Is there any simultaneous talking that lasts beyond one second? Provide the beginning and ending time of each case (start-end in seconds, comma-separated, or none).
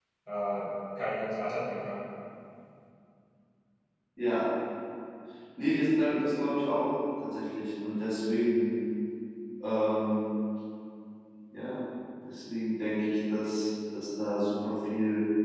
none